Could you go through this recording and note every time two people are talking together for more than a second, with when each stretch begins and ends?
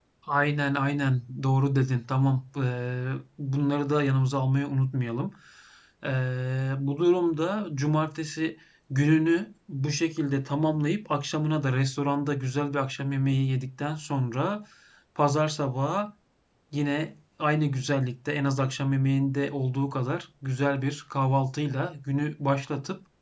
none

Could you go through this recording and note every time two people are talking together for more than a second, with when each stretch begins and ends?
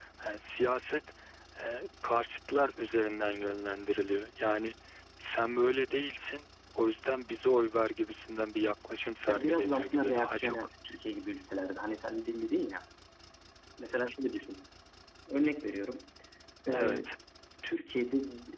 9.3-10.6

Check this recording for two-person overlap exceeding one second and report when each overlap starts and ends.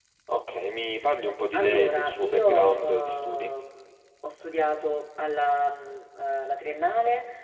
1.5-3.5

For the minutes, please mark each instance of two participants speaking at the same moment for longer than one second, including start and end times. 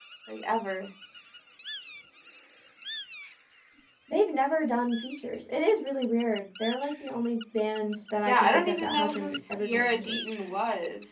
8.2-10.2

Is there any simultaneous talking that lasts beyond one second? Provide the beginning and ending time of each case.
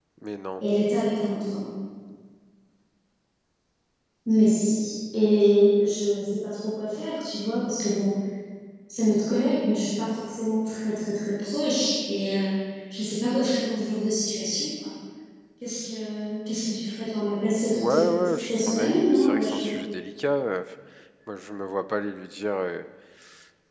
17.7-19.7

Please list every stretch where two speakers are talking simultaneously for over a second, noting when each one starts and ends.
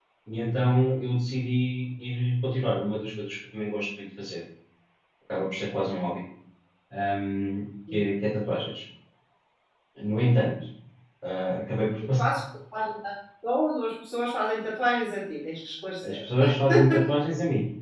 none

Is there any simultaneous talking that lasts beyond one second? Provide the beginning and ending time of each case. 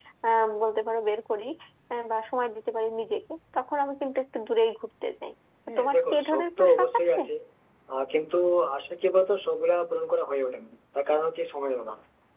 5.7-7.2

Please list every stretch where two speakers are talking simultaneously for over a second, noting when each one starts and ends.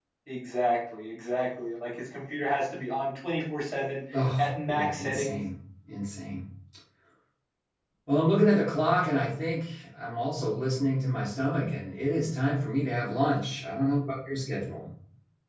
4.1-5.4

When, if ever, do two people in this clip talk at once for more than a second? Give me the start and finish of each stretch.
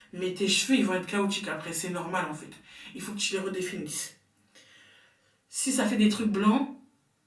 none

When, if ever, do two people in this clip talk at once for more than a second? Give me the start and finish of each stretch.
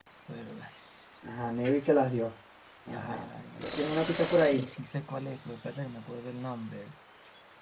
none

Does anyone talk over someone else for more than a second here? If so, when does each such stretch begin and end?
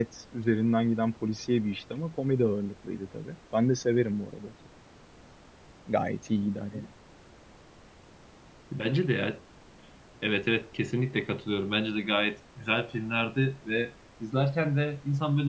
none

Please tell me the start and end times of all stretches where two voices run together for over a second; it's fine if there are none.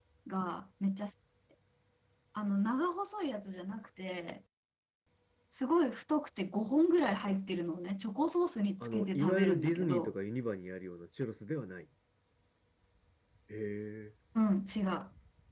8.8-10.1

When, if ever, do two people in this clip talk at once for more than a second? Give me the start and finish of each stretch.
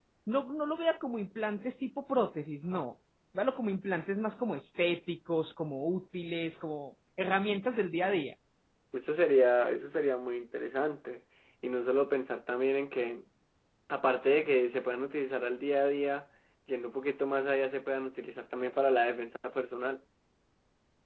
none

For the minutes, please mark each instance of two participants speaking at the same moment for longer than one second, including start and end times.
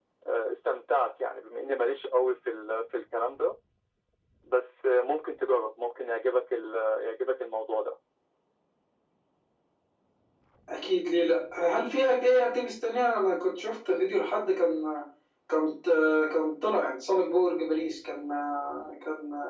none

